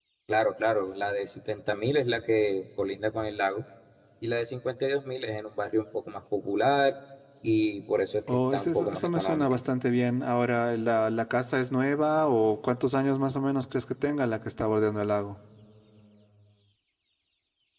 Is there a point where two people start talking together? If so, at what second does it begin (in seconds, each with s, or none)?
8.3 s